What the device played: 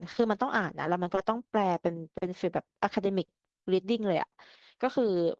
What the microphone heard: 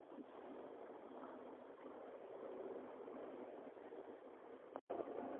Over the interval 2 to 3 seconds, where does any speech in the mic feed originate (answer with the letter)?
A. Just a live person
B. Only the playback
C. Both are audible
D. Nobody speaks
D